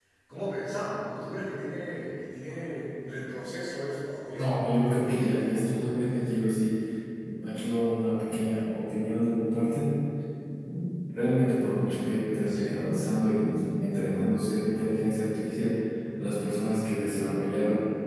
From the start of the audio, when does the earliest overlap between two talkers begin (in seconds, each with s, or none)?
4.3 s